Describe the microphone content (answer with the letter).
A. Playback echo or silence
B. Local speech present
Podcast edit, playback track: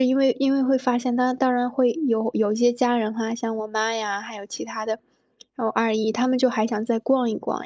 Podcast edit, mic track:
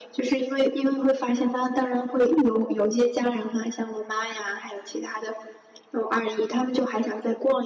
A